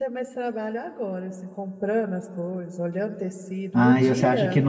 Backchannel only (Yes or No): No